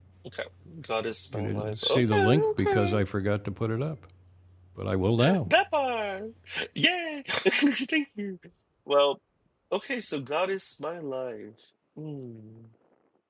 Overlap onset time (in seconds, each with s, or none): 1.3 s